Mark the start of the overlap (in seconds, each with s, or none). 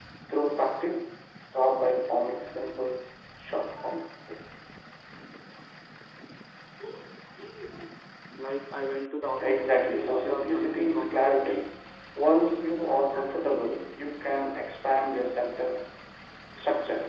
9.4 s